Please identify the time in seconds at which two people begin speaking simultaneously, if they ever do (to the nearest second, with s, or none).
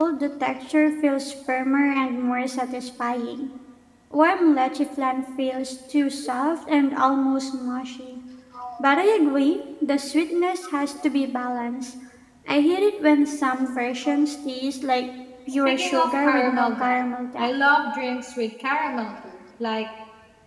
16 s